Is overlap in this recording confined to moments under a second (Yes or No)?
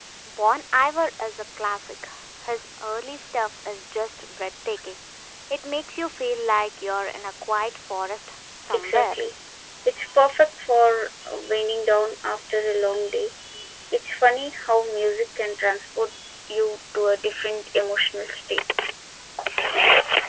Yes